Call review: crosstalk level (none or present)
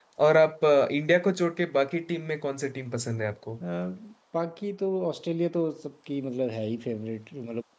none